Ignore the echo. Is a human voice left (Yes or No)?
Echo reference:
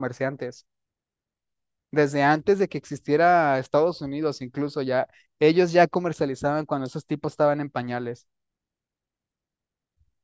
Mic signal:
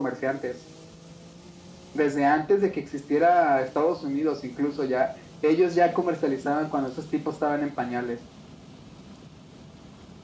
No